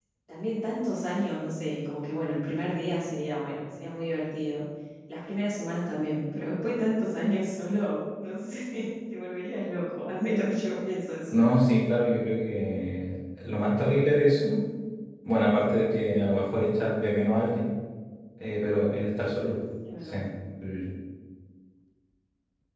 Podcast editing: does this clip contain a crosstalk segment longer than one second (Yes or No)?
No